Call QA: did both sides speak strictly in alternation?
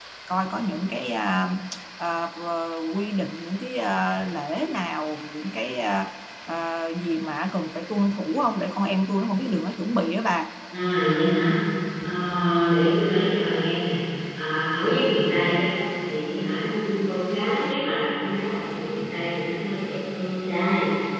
Yes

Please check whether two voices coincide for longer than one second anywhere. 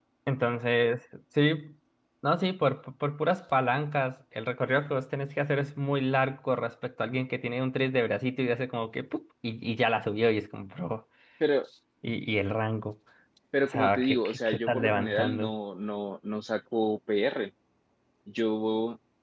Yes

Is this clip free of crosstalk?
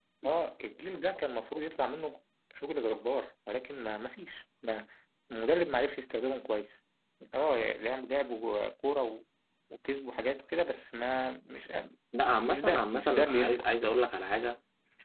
No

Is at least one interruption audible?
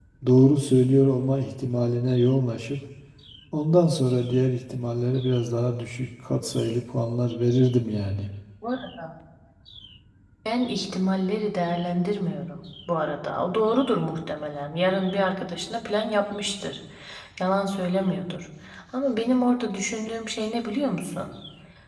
No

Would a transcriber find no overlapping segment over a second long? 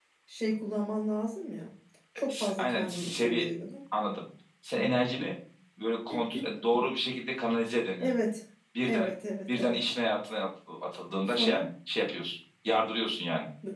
No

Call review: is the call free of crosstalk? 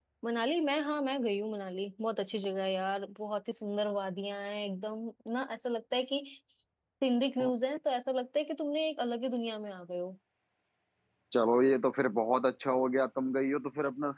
Yes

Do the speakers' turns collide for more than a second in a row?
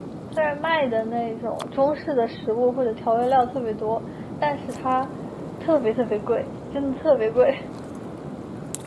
No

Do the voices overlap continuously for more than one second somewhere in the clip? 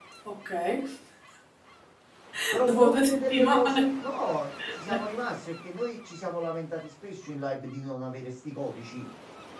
Yes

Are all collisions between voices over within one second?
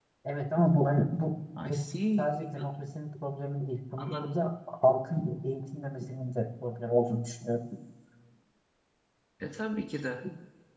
Yes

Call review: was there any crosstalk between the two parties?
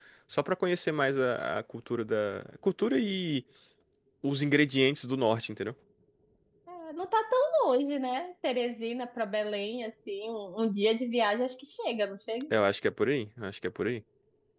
No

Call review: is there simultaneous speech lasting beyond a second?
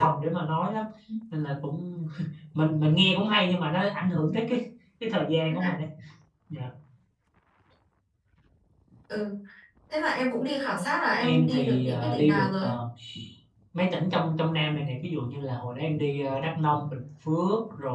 Yes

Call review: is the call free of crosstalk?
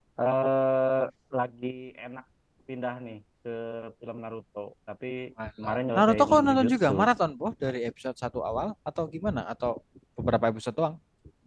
No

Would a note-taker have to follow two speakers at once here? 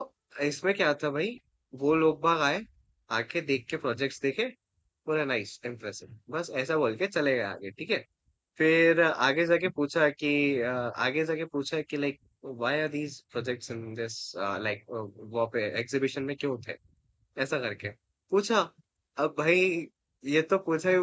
No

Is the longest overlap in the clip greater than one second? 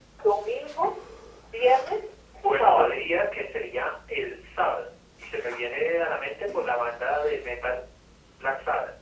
No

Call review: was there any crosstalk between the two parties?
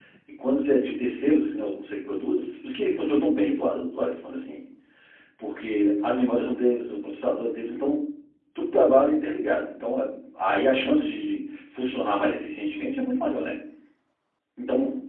No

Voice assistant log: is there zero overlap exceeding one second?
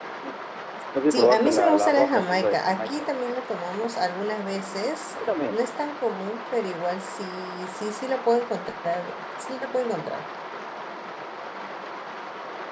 No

